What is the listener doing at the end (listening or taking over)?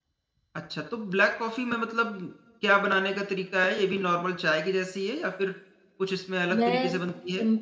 taking over